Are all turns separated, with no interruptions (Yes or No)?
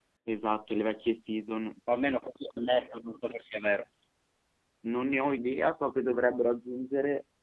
Yes